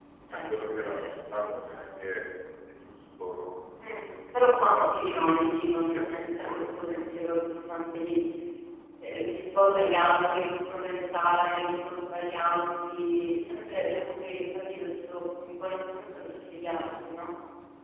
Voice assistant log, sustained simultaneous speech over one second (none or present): present